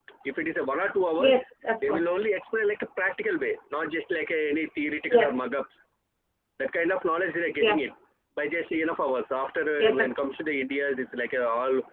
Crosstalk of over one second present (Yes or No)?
No